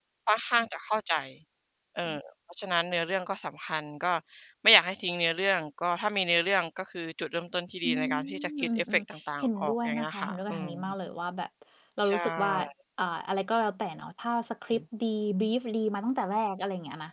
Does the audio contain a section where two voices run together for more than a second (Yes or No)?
Yes